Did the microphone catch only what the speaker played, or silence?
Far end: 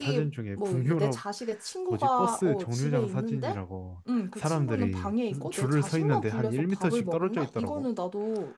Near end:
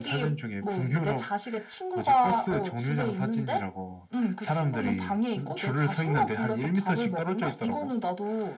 Yes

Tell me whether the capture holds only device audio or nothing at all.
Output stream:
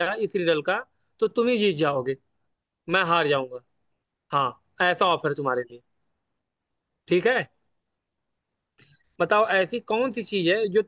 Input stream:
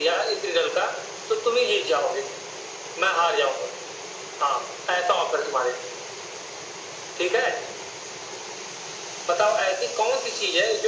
Yes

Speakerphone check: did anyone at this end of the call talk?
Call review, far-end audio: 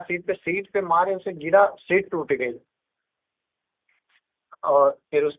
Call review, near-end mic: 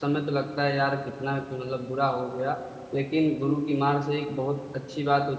Yes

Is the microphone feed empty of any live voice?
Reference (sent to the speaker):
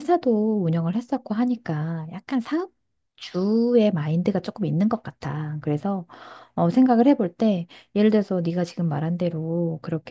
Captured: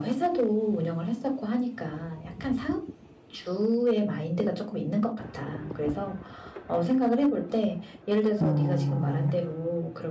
No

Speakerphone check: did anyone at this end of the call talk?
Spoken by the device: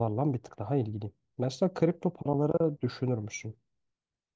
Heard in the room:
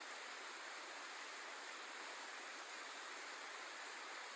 No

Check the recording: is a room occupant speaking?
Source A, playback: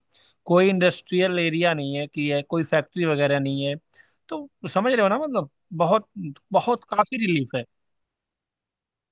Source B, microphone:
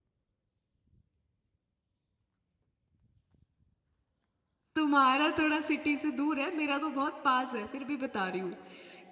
Yes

